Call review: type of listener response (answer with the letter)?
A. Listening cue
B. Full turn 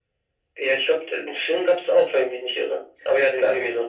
B